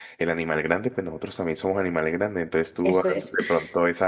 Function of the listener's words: listening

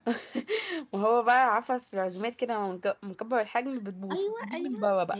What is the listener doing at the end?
taking over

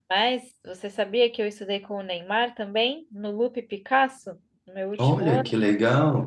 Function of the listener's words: taking over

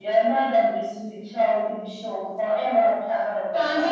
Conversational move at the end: taking over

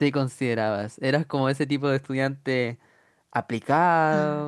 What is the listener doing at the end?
listening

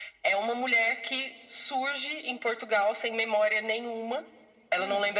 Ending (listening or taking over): listening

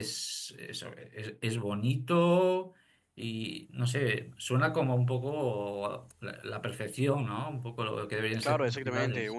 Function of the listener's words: taking over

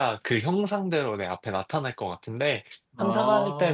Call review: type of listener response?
listening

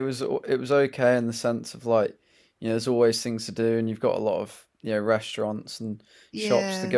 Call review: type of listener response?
listening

